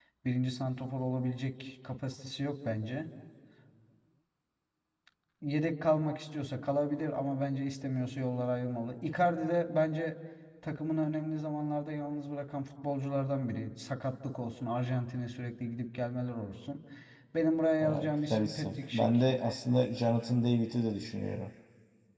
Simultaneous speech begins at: 17.8 s

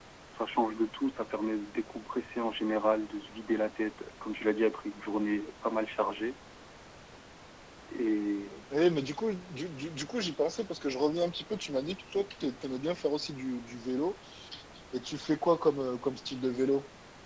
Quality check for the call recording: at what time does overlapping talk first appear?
none

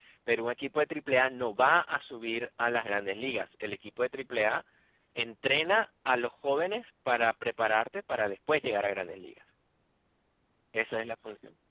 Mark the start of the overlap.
none

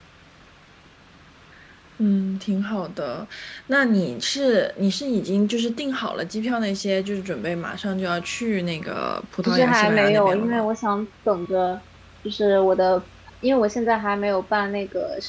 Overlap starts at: 9.4 s

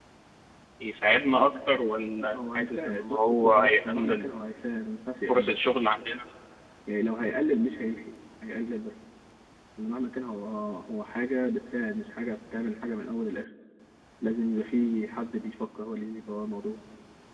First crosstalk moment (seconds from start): 2.2 s

